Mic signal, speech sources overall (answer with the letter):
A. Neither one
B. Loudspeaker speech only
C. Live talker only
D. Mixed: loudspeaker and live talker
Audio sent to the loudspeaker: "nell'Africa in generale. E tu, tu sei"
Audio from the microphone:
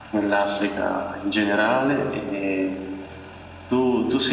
B